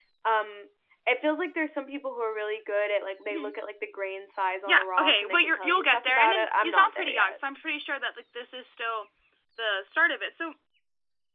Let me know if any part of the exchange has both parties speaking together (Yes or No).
Yes